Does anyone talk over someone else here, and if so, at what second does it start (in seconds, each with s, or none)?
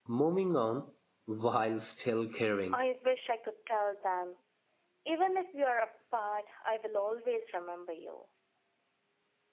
none